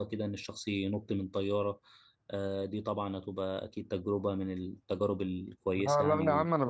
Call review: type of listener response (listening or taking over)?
taking over